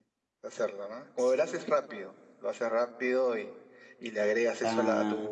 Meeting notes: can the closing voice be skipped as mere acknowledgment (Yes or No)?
Yes